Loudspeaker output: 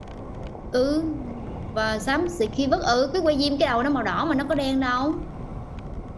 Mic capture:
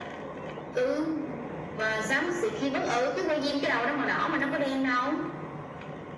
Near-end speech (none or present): none